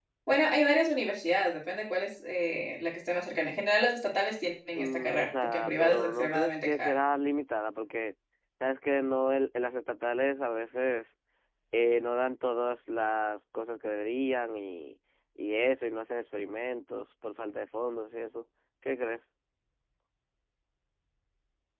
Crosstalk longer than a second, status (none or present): present